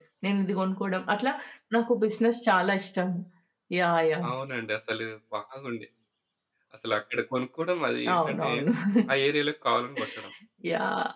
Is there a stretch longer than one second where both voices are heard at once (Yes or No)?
No